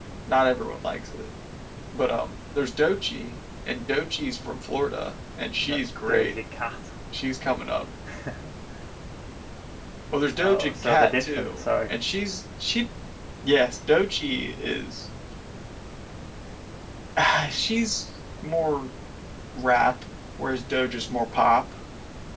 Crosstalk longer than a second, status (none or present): present